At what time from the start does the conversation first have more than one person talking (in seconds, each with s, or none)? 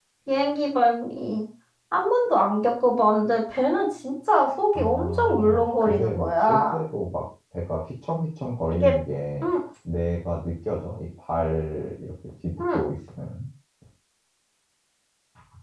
4.7 s